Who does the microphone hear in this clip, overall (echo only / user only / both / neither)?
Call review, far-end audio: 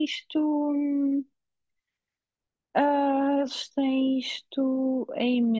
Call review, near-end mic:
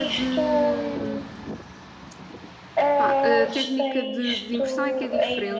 both